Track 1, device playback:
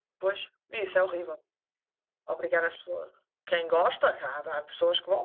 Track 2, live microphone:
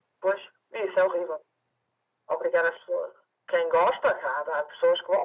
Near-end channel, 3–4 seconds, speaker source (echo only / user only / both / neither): echo only